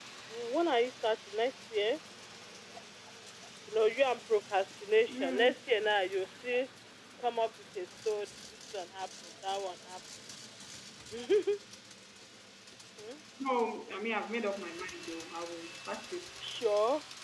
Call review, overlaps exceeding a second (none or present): none